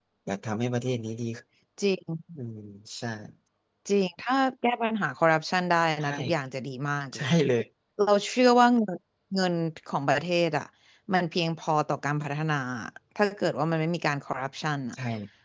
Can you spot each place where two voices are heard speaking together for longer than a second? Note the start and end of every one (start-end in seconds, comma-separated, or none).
none